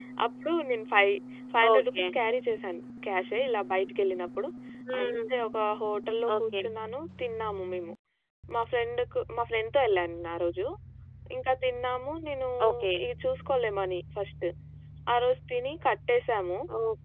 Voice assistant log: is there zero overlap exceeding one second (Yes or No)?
Yes